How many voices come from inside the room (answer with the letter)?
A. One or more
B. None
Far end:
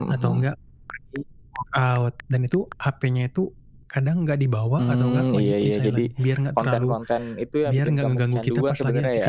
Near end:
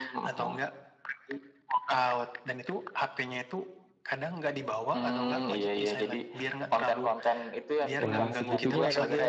A